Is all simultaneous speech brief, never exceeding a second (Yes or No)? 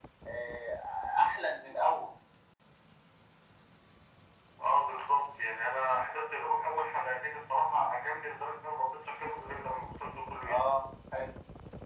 Yes